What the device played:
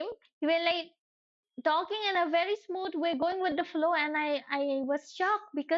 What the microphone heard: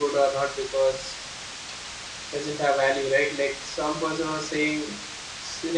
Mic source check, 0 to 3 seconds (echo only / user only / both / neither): user only